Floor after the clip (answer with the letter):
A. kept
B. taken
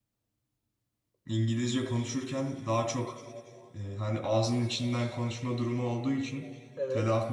A